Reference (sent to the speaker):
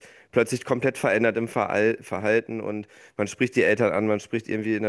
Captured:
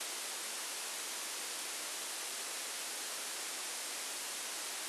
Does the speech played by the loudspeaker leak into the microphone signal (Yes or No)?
No